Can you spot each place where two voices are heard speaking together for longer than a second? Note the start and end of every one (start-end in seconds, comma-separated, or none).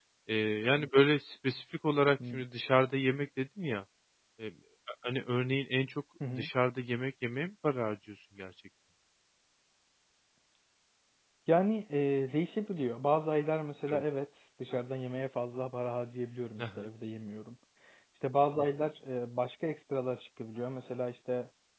none